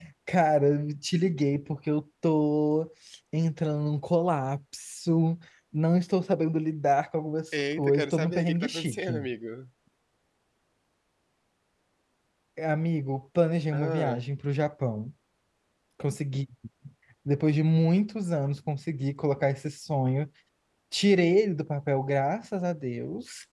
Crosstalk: present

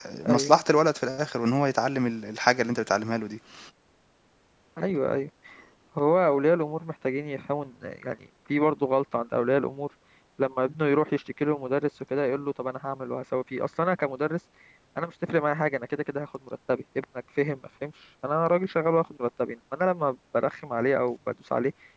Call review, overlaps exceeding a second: none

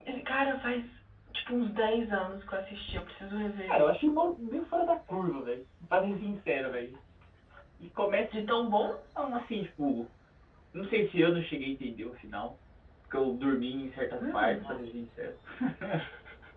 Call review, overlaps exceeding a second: none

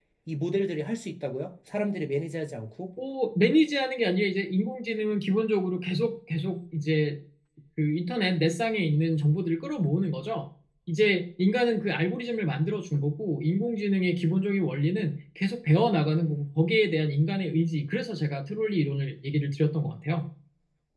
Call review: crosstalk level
none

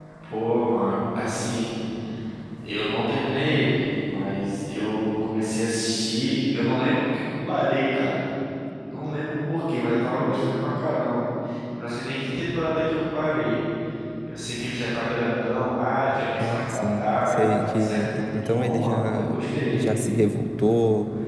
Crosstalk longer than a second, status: present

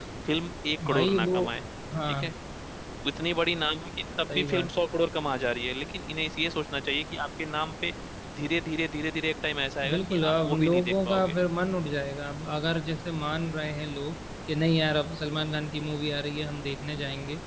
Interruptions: present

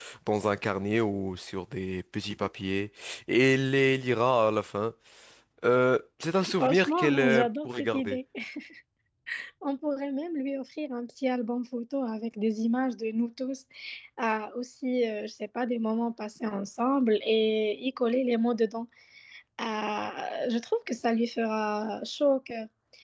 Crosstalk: present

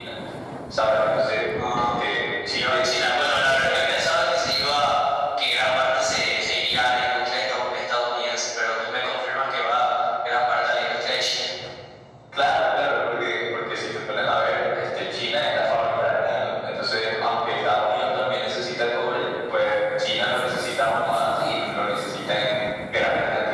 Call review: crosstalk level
present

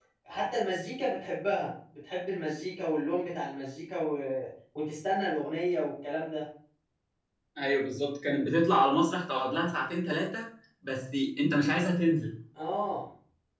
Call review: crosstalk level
none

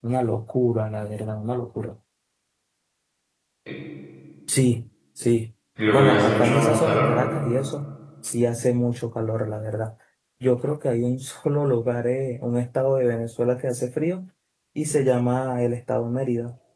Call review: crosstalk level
present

